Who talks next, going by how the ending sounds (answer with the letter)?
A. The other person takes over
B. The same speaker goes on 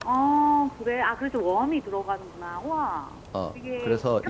A